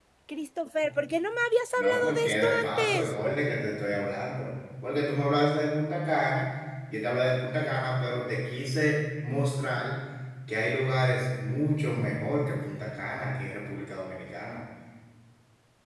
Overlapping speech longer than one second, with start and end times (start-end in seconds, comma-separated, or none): 1.8-3.1